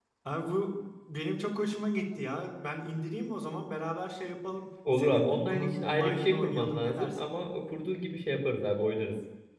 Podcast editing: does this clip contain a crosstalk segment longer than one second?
Yes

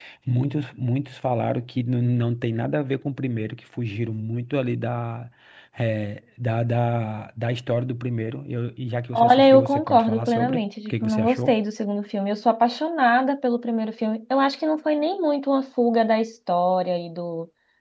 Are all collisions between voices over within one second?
No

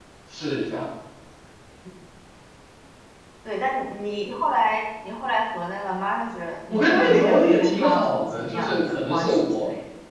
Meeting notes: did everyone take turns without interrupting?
No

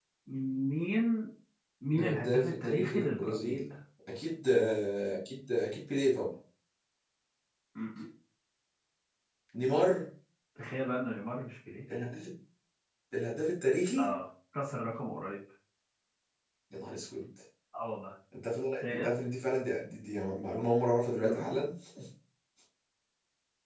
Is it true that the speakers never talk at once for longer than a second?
No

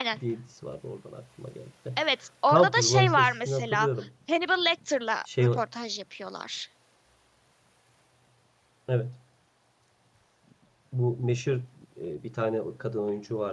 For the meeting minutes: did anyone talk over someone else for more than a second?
Yes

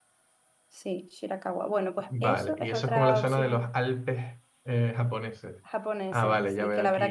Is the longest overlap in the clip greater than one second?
Yes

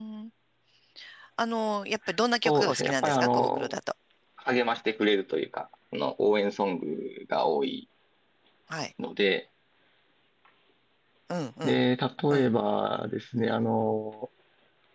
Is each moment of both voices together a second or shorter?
No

